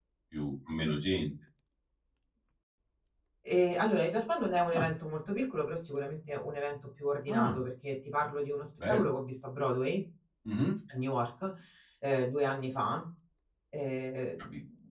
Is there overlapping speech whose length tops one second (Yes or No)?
No